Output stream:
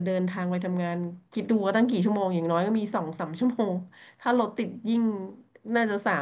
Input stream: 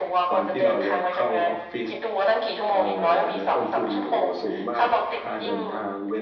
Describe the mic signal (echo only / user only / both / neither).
both